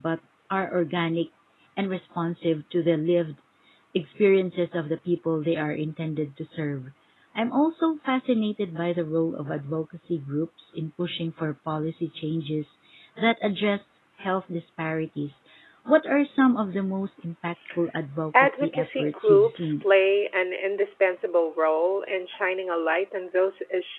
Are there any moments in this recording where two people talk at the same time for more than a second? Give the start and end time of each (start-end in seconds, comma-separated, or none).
18.4-19.8